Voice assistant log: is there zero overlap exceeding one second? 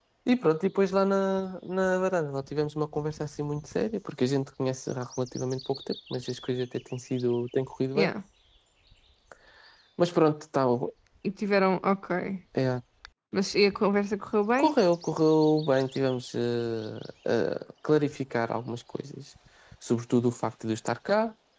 Yes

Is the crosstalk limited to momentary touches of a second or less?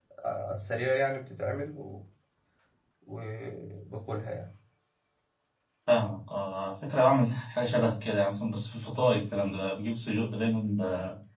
Yes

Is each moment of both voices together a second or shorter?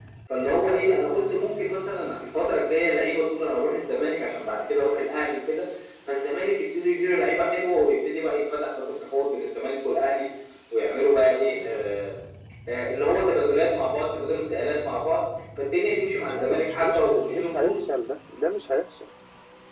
No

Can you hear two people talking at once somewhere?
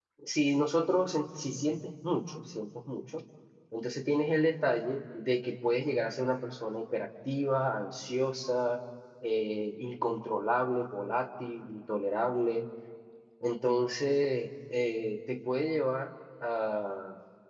No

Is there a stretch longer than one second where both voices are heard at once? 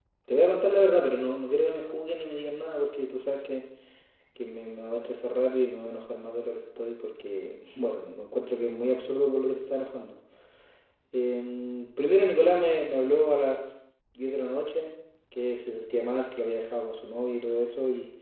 No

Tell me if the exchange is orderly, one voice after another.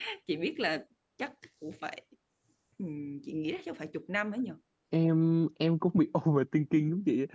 Yes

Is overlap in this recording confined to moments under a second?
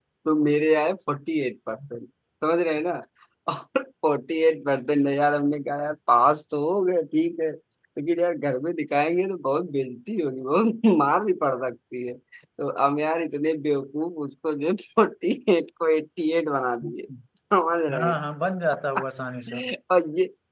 Yes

